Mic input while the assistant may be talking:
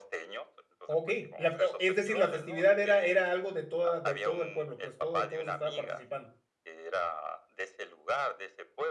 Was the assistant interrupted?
Yes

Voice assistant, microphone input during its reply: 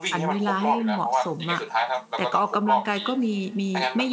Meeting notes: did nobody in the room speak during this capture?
No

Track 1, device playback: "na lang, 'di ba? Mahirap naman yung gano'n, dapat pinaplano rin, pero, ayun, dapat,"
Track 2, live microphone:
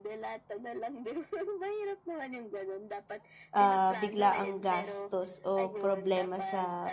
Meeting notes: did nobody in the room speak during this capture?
No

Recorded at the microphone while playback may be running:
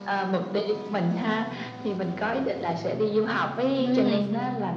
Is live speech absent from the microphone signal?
No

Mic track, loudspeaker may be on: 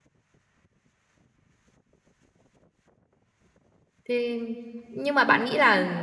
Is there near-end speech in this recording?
Yes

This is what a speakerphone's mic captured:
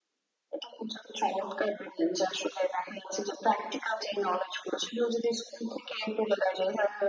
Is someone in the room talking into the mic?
No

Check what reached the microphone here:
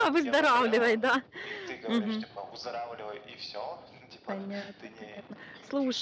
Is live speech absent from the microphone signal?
No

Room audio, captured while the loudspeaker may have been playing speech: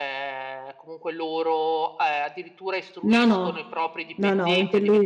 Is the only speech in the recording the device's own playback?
No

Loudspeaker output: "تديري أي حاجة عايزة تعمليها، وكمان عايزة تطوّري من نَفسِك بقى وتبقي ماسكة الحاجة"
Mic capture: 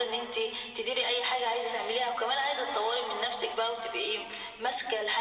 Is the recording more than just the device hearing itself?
No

